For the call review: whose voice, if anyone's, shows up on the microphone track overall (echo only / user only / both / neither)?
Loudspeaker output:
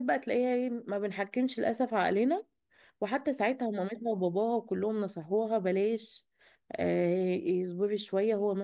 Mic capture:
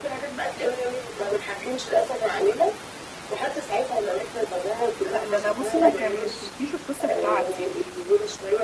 both